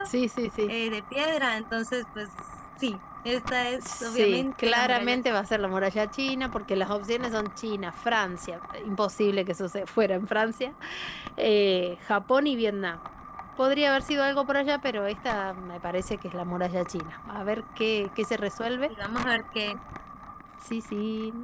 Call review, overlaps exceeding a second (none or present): present